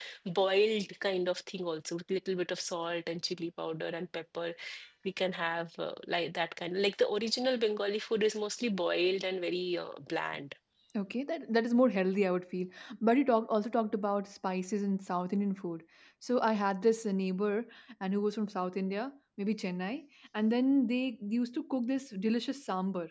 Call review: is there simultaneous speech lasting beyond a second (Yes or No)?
No